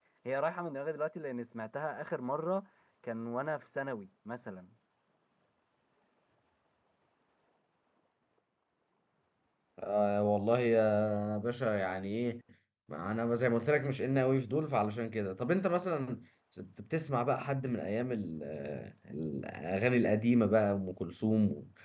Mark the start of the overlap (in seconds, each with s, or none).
none